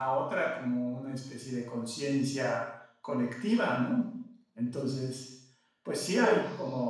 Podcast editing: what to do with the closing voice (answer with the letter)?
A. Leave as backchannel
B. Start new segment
A